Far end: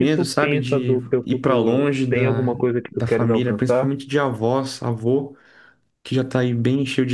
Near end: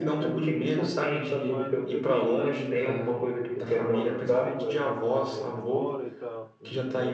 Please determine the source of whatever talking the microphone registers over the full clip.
both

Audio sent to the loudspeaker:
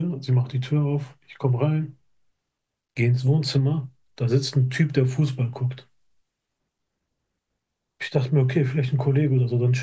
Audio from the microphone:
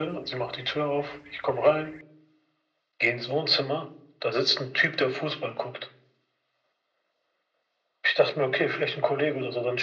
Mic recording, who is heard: echo only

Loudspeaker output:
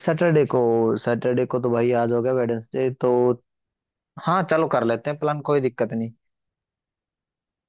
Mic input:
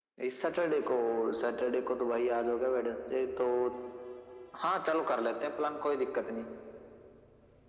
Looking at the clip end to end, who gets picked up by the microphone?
echo only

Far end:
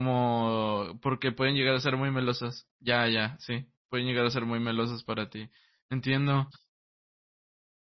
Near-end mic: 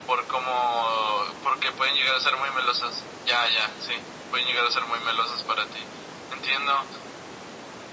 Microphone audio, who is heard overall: echo only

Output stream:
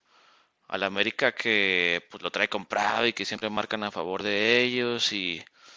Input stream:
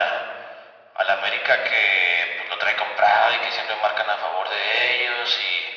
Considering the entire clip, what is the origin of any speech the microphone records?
echo only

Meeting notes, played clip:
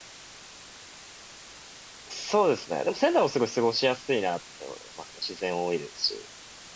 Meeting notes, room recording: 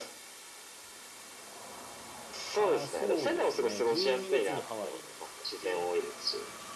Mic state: both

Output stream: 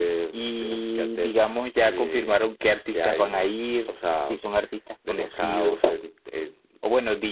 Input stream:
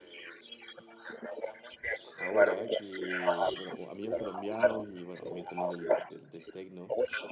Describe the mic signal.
both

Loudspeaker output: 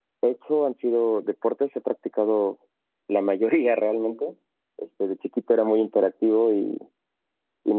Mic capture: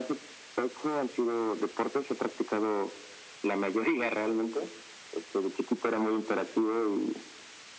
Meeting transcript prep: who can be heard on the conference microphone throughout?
echo only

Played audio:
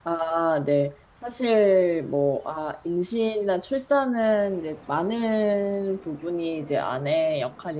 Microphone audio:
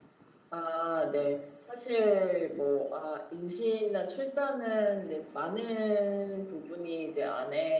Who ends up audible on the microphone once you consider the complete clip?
echo only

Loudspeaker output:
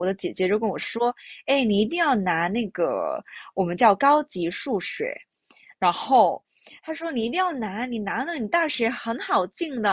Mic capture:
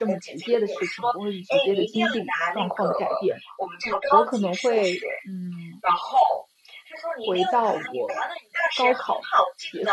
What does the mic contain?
both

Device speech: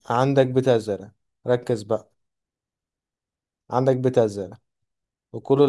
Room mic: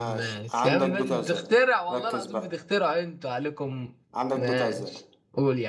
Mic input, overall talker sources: both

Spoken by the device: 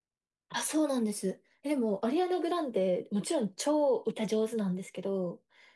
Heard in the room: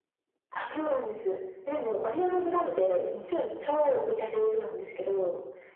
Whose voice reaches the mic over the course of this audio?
both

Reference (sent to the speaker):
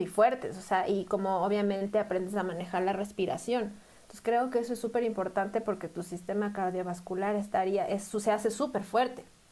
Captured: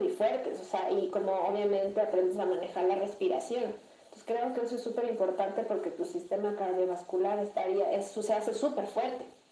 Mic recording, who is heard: echo only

